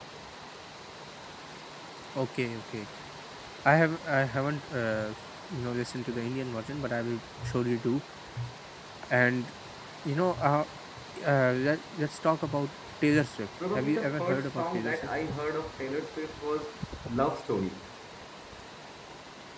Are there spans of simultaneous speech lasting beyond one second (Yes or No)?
Yes